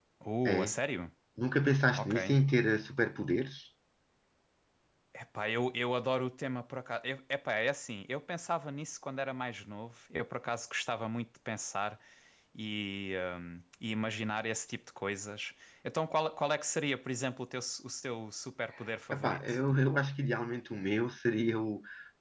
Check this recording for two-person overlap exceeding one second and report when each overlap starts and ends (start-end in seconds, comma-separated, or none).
none